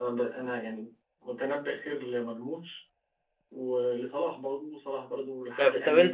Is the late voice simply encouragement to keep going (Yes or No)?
No